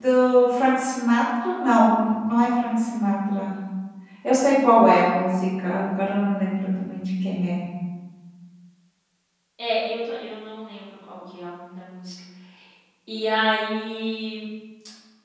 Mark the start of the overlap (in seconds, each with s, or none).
none